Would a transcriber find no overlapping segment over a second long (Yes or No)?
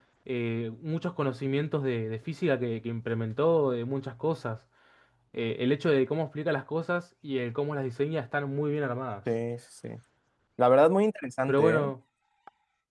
Yes